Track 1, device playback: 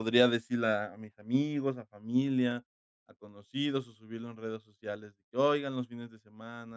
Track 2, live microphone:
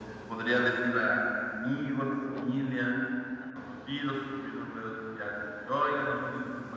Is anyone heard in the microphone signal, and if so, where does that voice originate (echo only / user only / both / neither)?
echo only